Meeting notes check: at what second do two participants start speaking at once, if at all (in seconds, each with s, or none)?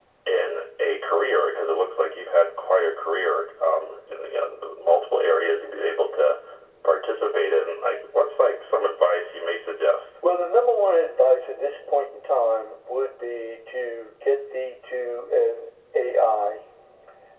none